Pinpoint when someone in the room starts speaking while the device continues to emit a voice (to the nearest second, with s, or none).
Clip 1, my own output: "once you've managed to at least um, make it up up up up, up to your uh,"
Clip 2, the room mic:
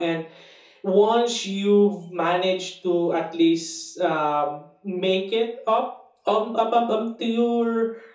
none